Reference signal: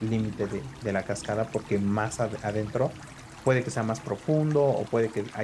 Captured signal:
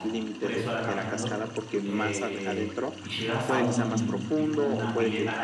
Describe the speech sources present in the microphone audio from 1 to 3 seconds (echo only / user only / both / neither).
both